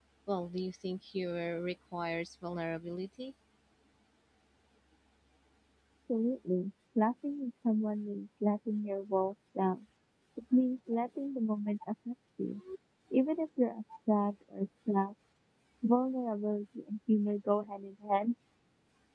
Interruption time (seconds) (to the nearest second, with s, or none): none